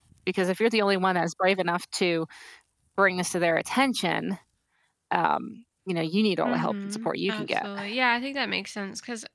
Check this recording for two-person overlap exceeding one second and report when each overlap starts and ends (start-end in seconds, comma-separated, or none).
6.4-7.7